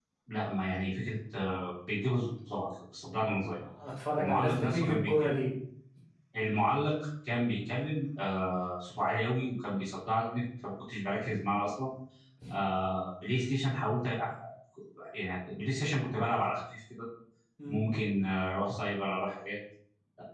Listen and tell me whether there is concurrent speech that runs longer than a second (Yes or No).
Yes